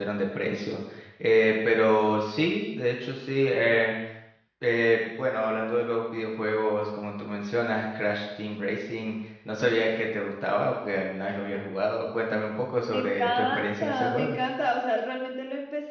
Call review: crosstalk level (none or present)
present